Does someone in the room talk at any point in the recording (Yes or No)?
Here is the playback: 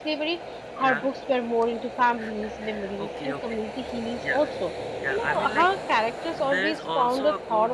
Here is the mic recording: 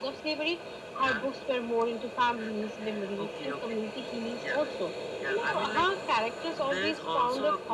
No